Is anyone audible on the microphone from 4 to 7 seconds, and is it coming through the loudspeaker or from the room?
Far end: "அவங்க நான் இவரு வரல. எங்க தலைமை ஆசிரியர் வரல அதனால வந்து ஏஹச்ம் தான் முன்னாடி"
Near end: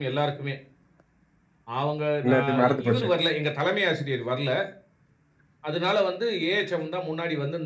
echo only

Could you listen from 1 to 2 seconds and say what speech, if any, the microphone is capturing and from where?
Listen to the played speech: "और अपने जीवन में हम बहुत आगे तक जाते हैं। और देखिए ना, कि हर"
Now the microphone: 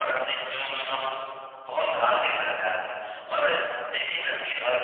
echo only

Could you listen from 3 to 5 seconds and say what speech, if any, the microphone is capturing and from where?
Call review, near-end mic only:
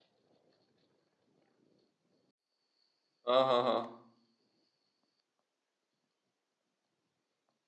user only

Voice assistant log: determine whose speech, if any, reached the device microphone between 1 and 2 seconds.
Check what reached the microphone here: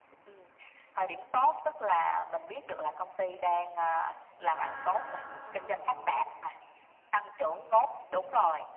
echo only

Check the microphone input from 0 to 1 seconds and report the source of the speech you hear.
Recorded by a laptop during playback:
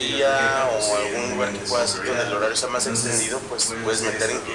both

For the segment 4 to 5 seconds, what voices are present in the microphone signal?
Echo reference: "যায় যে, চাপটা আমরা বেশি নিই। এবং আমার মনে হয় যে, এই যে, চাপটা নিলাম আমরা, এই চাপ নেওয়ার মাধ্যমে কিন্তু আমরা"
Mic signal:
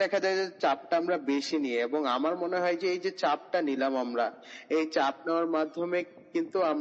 echo only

